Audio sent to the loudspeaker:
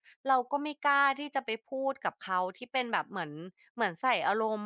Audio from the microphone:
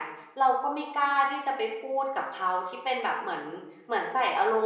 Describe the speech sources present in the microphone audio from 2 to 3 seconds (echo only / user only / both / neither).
echo only